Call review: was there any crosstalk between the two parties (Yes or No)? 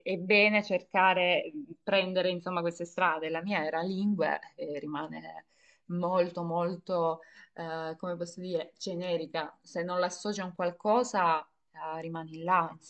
No